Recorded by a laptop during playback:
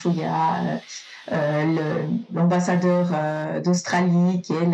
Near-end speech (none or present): none